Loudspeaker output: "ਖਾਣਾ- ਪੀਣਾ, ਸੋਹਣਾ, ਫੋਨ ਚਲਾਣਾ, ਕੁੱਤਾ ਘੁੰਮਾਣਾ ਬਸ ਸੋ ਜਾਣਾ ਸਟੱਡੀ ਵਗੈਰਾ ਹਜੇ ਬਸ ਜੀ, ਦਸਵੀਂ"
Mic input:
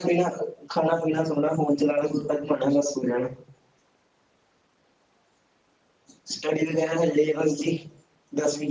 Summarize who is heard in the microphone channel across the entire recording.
echo only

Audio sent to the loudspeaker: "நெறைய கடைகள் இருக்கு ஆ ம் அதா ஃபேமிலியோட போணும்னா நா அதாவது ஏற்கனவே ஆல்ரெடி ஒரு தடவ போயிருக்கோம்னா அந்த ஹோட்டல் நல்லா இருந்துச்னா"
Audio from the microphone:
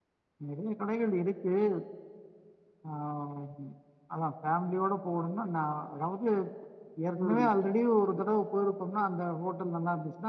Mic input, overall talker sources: both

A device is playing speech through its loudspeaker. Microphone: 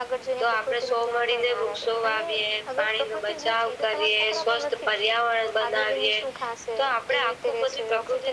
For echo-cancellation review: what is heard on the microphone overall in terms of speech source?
echo only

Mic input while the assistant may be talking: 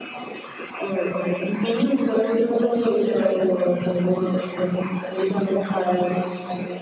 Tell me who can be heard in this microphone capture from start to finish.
echo only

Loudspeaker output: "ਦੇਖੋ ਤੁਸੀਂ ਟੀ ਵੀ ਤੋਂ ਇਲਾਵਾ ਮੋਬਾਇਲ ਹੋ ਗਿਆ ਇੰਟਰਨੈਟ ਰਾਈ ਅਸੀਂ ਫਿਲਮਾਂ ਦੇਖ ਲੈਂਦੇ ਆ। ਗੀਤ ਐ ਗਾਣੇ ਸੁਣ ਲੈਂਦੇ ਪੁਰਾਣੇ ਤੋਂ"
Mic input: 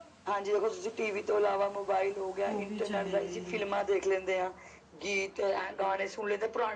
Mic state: both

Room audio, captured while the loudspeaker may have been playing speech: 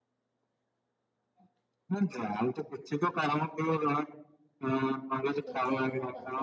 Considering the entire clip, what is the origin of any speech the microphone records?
both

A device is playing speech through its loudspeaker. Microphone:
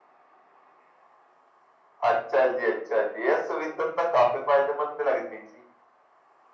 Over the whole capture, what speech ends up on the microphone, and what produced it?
echo only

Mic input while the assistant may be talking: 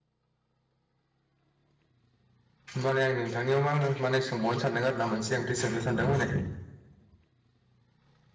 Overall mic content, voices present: user only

